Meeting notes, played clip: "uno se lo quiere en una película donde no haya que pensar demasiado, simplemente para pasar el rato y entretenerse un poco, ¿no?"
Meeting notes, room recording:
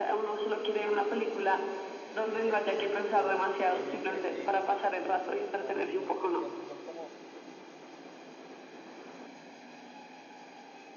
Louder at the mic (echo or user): echo